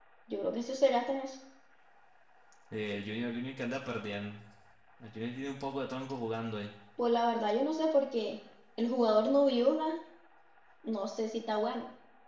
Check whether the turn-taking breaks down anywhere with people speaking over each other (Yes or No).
No